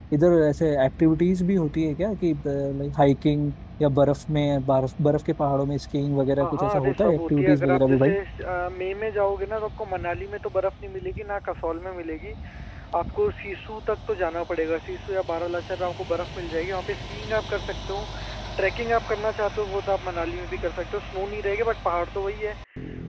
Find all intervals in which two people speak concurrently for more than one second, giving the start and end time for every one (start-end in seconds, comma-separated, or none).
6.4-8.1